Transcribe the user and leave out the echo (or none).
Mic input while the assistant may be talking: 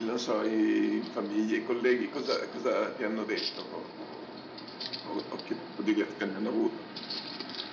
none